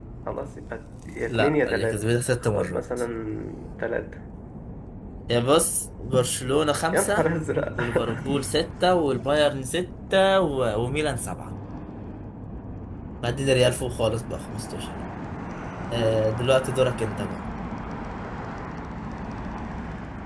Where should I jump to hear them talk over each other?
1 s

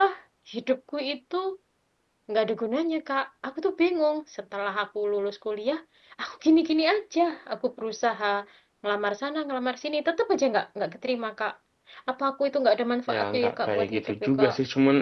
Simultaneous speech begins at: 13 s

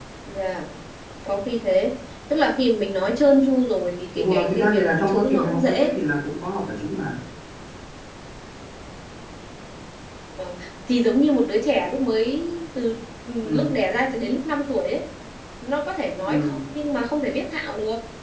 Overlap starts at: 4 s

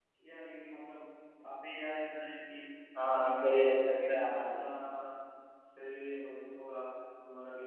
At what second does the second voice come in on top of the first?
3 s

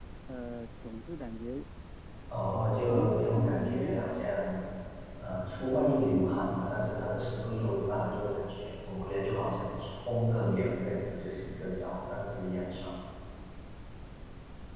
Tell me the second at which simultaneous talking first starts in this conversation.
3 s

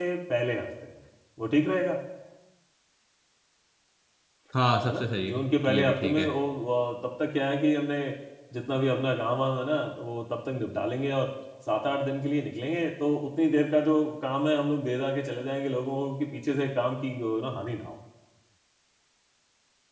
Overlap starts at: 5 s

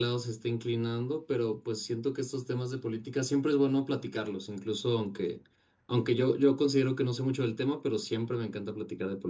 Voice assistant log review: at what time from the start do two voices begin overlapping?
none

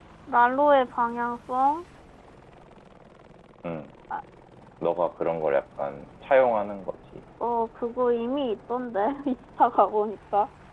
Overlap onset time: none

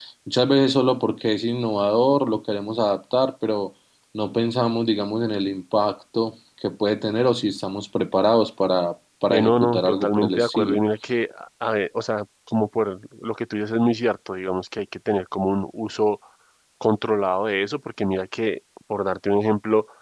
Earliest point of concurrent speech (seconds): 9 s

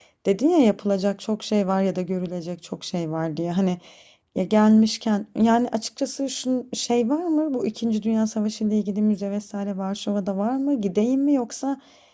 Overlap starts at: none

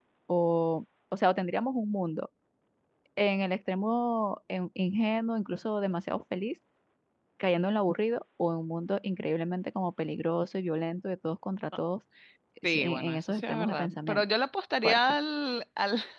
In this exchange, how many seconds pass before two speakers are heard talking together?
13 s

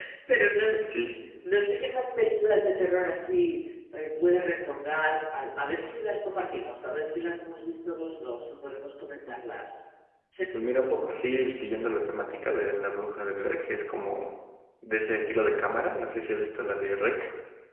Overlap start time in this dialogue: none

